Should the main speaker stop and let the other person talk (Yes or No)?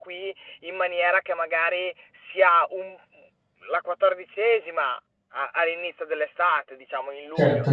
No